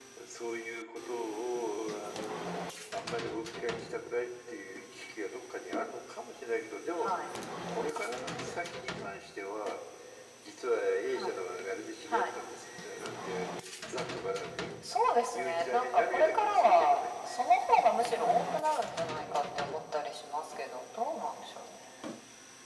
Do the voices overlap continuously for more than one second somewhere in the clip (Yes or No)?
Yes